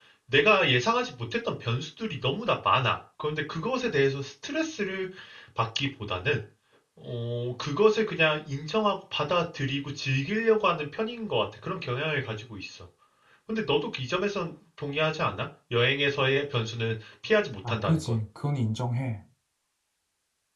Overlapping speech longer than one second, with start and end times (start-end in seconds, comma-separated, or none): none